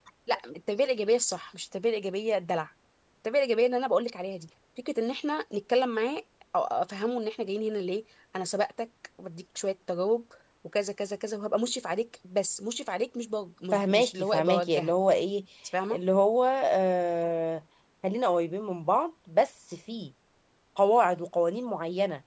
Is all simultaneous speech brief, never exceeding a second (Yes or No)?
No